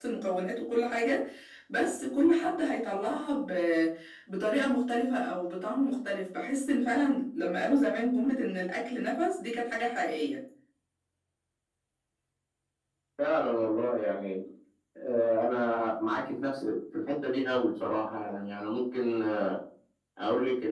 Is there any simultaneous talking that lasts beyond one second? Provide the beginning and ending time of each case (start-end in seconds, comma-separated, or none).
none